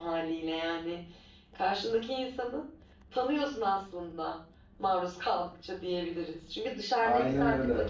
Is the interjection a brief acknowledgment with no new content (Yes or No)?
Yes